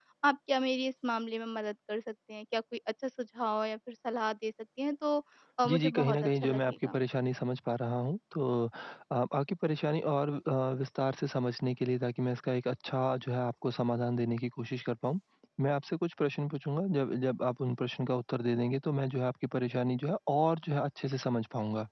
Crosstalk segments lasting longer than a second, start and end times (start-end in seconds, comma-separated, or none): 5.7-7.0